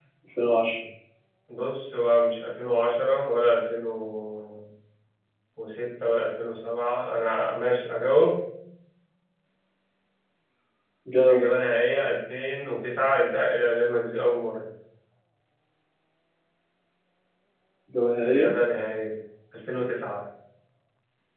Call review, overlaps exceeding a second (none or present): none